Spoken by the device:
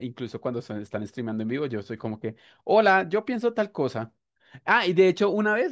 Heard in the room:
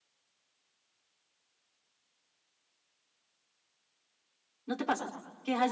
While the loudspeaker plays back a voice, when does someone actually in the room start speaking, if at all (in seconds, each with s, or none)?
4.6 s